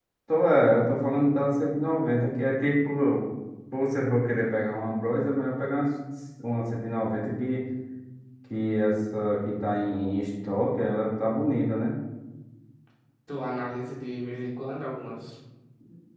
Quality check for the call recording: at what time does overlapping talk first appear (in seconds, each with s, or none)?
none